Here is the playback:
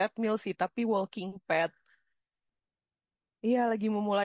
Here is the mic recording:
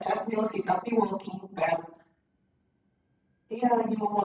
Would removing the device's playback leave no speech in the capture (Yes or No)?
Yes